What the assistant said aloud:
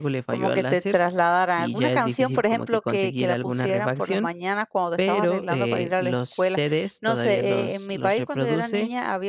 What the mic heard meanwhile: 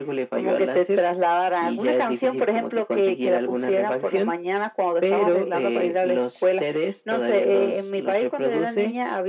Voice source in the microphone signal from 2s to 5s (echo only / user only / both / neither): echo only